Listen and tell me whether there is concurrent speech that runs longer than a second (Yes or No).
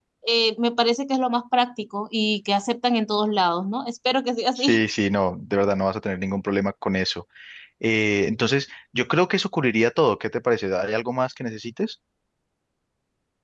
No